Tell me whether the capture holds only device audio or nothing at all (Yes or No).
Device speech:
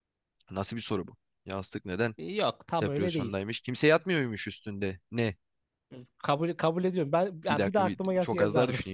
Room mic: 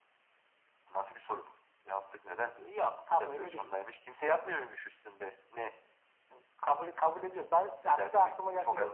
Yes